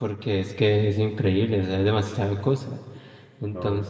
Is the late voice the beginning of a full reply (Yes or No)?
No